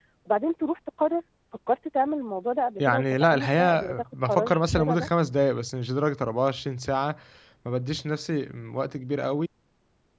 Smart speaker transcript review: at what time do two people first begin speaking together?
3 s

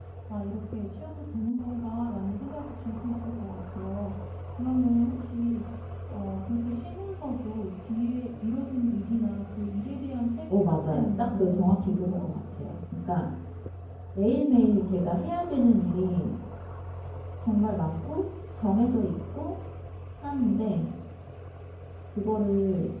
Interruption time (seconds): 10 s

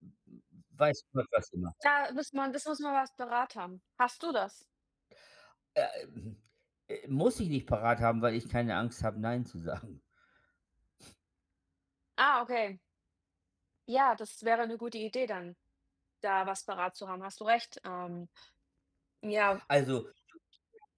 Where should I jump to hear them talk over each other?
none

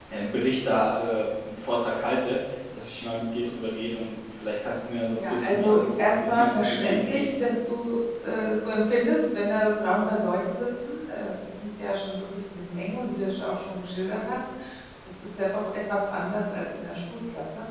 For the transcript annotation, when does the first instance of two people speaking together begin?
5 s

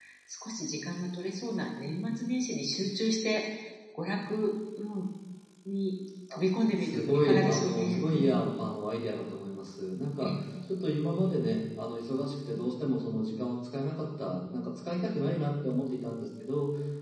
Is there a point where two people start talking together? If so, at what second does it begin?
7 s

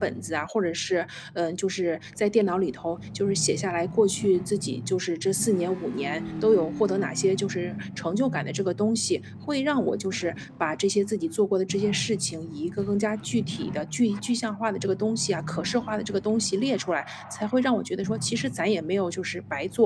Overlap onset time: none

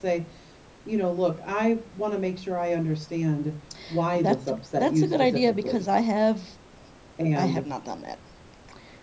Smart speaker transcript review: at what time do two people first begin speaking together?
4 s

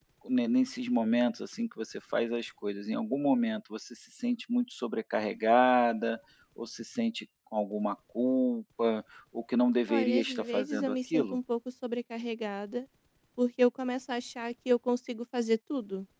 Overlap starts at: 10 s

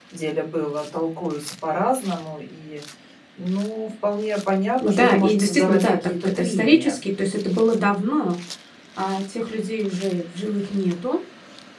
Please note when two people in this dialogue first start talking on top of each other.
5 s

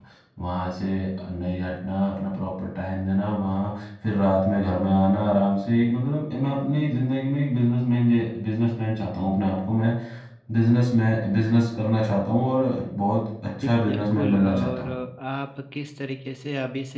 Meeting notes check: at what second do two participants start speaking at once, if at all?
14 s

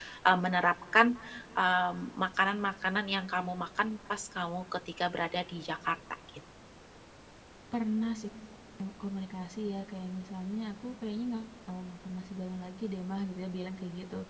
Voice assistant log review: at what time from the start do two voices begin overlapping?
none

